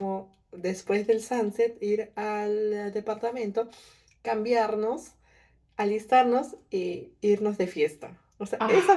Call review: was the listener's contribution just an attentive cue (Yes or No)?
Yes